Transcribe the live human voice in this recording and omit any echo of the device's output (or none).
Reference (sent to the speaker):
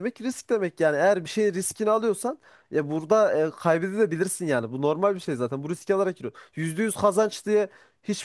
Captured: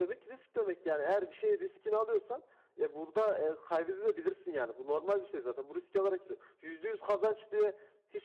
none